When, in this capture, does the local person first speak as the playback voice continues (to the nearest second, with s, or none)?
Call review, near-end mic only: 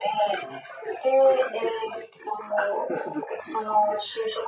none